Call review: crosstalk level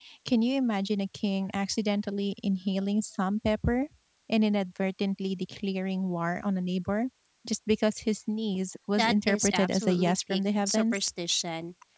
present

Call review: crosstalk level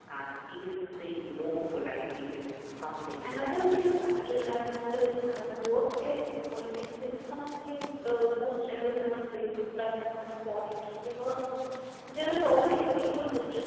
present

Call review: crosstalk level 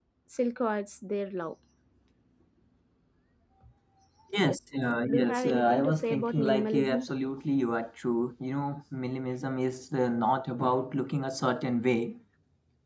present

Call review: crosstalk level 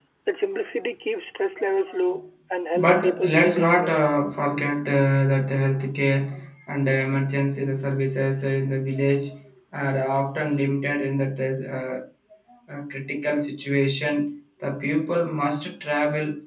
present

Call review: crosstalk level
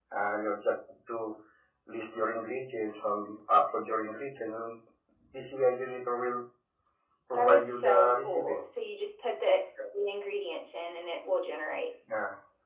present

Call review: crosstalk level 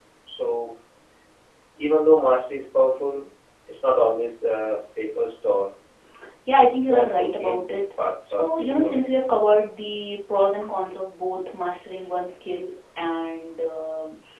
present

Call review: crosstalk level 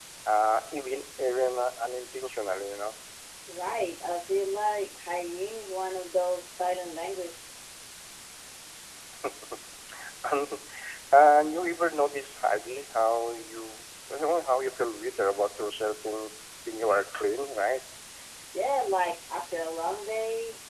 none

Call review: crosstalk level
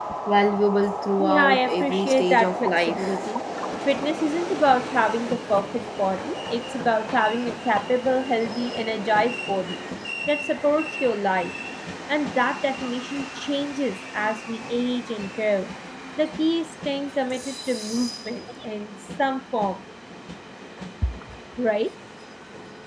present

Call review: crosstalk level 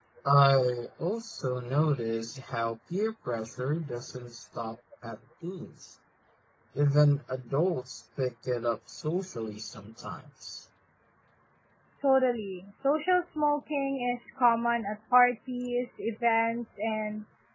none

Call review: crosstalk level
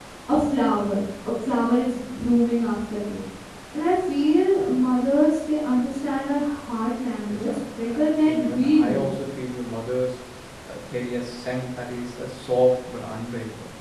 present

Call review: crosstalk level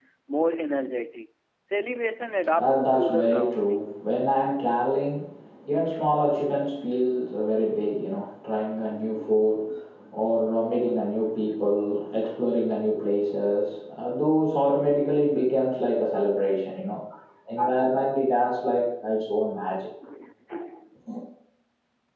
present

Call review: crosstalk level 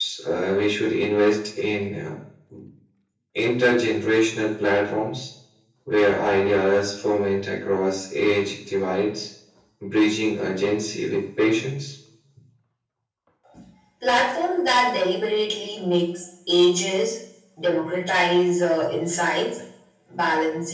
none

